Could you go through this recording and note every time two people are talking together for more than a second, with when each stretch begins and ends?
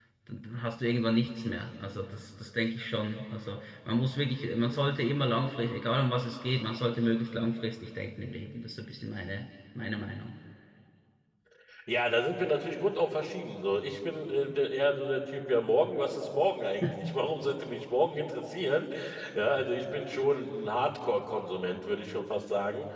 none

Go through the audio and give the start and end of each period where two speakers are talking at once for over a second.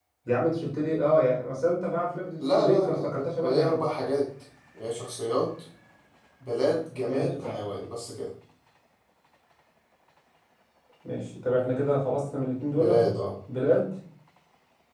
2.4-3.8

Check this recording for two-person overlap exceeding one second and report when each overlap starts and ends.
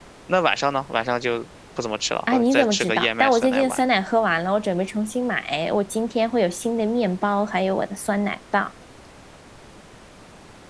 2.3-3.8

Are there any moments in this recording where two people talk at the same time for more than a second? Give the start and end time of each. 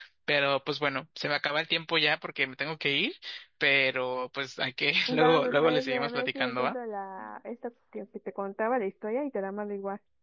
5.1-6.8

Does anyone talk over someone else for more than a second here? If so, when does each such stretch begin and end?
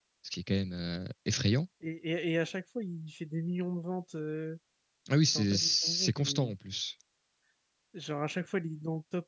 5.3-6.5

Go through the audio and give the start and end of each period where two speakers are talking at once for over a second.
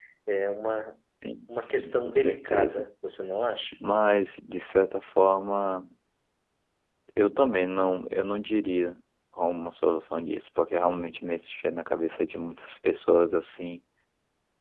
1.5-2.9

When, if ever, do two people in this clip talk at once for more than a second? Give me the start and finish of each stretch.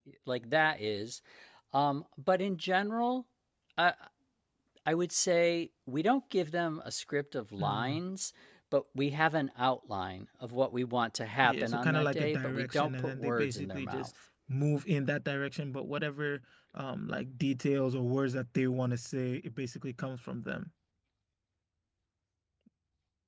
11.4-14.1

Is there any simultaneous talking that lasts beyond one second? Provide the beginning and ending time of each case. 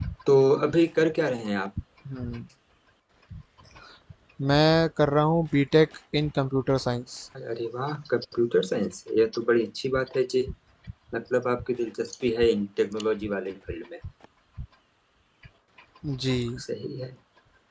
none

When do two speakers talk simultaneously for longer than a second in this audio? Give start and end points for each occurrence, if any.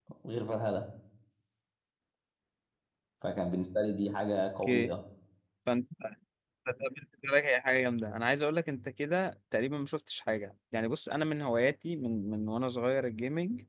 none

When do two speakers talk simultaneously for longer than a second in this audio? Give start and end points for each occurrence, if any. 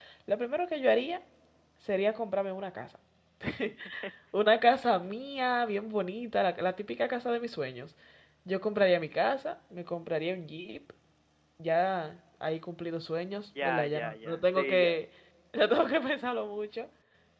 13.6-15.0

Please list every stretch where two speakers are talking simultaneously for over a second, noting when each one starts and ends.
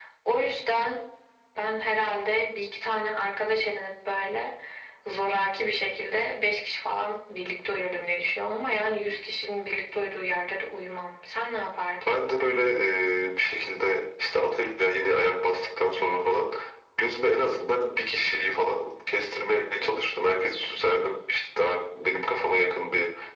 none

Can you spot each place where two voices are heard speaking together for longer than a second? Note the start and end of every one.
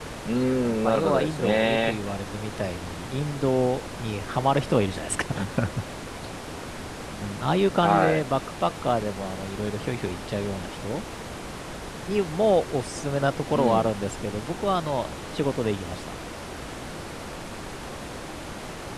0.6-2.0

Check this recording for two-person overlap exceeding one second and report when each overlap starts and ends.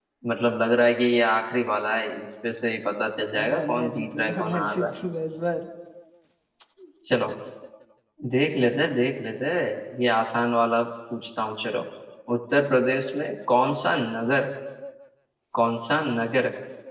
3.4-4.9

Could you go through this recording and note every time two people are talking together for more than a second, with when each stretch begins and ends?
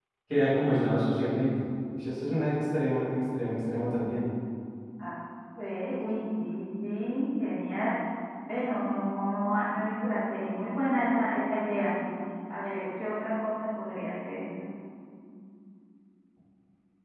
none

